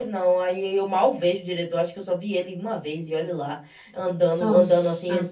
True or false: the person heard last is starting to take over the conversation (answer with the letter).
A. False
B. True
A